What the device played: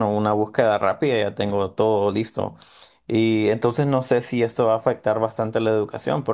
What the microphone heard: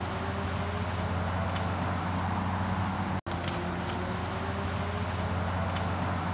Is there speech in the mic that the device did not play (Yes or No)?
No